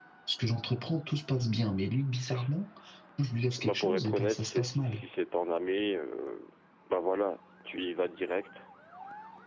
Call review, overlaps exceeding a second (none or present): present